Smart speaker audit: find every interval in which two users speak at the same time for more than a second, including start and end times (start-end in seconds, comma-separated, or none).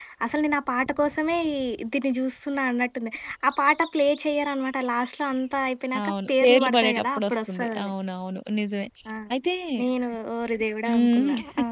6.0-7.9